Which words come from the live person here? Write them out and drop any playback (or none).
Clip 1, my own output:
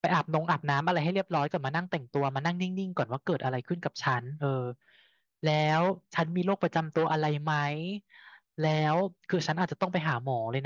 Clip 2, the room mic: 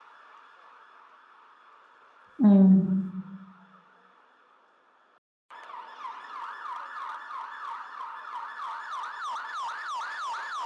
อืม